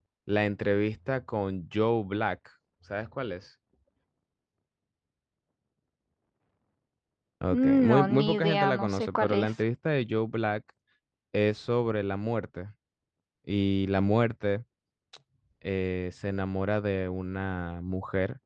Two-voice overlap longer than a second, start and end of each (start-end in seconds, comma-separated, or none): 7.5-9.6